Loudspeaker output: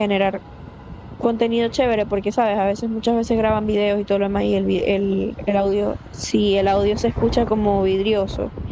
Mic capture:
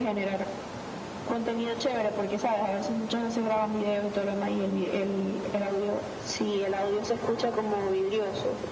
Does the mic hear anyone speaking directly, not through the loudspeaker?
No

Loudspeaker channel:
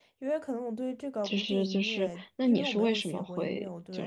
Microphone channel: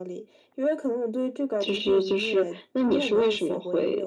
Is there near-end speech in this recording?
No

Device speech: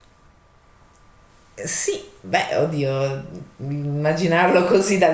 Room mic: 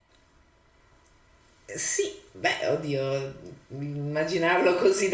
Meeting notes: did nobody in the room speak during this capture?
Yes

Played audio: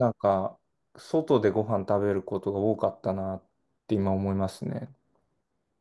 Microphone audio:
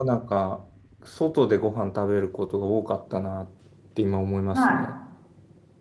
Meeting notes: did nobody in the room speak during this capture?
No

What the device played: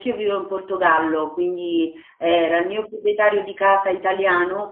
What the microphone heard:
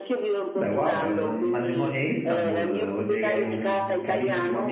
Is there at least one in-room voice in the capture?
Yes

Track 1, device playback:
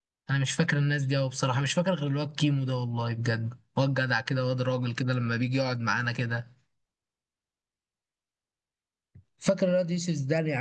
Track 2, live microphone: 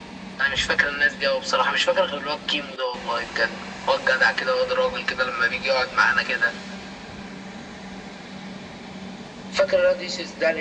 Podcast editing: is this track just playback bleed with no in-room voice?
Yes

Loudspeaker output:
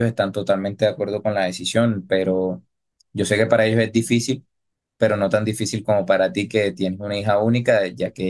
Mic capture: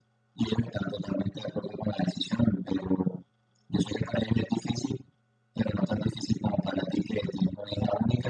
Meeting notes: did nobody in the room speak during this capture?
Yes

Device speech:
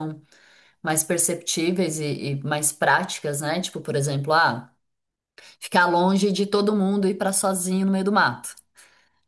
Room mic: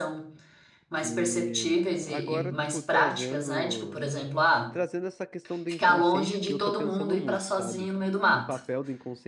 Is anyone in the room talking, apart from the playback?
Yes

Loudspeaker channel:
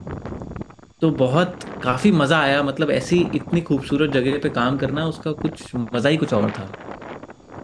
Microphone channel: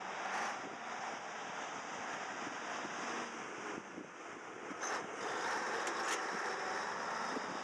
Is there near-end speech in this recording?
No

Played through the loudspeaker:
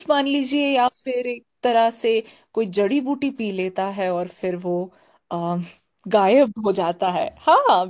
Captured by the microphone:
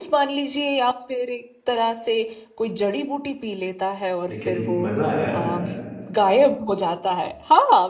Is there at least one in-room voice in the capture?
Yes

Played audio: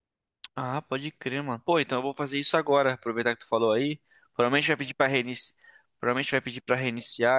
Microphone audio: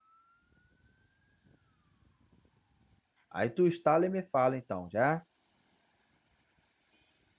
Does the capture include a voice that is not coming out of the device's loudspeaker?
Yes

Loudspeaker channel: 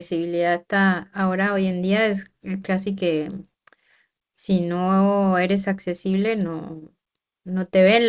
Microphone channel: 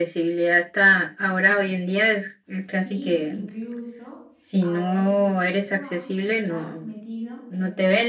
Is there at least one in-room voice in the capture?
Yes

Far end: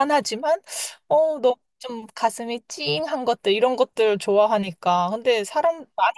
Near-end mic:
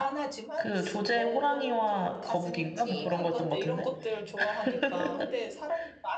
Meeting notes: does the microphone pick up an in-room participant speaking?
Yes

